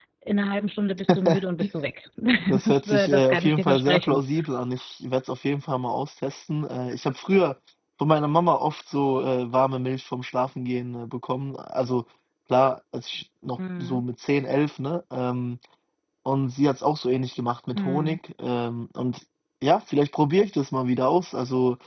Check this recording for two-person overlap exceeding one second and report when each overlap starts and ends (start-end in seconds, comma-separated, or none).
2.6-4.2